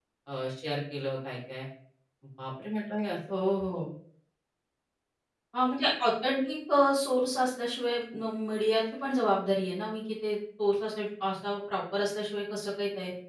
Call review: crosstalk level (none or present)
none